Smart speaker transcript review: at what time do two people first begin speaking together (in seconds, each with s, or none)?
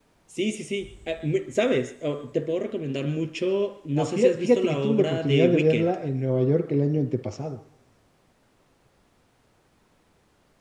3.9 s